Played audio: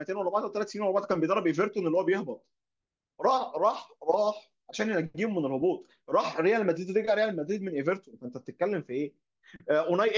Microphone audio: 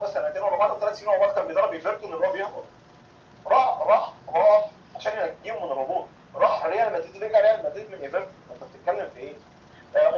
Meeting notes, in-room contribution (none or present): none